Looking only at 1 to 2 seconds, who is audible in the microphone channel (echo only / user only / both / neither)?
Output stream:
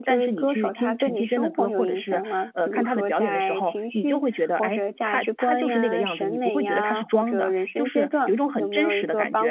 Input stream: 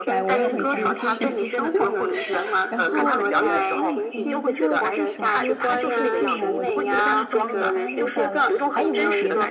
both